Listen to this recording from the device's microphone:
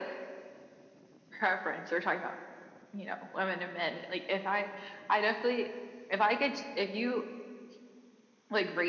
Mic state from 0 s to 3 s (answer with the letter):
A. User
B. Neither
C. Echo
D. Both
C